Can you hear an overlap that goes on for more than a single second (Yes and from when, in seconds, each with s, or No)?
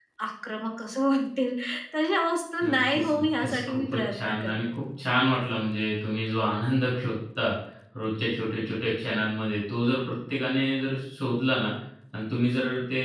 Yes, from 2.6 s